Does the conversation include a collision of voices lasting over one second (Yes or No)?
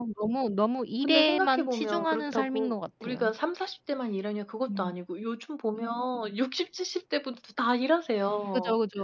Yes